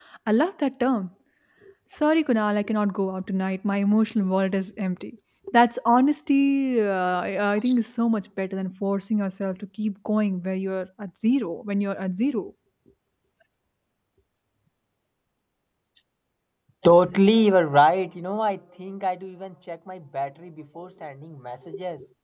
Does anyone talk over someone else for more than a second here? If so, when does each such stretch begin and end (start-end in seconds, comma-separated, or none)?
none